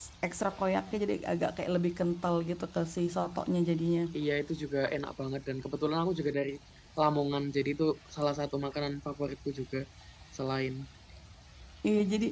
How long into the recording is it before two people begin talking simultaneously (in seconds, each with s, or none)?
none